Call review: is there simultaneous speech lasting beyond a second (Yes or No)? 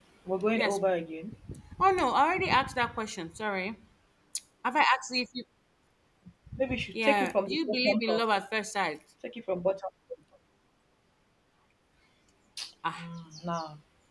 Yes